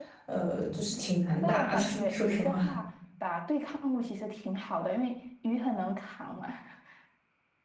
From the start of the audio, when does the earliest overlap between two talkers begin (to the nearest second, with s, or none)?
1 s